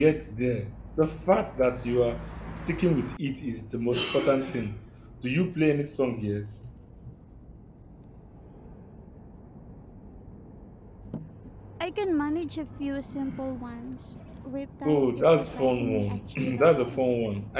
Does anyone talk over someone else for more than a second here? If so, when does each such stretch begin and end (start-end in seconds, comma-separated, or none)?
14.9-17.0